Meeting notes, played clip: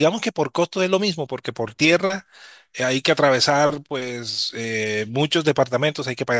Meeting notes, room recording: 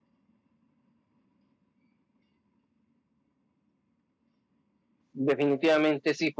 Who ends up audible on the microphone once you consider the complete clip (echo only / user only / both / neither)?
user only